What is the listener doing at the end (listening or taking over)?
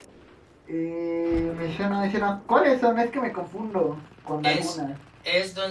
taking over